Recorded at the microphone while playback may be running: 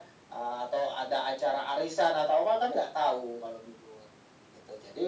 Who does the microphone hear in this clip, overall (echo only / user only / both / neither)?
echo only